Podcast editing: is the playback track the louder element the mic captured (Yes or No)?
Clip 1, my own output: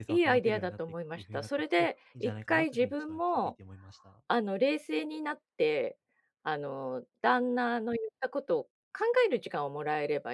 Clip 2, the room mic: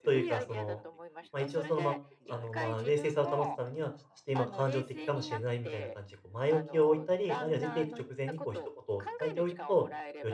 No